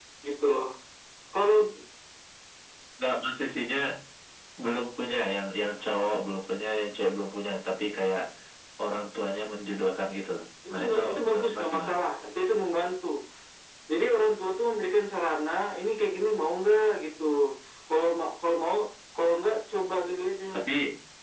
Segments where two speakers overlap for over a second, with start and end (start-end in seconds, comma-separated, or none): 10.7-11.9